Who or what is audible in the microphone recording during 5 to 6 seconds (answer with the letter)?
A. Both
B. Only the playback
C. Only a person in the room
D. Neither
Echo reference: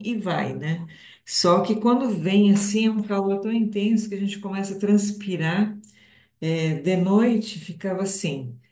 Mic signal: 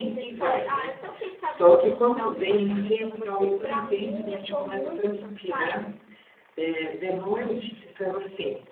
A